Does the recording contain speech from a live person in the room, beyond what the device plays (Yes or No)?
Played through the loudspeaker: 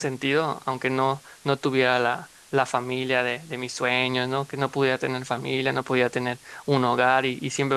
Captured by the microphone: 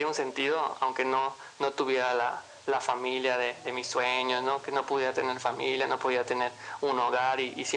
No